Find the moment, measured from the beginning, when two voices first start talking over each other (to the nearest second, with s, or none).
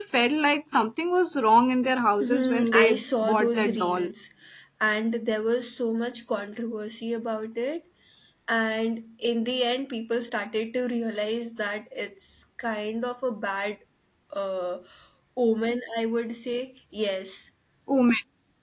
2 s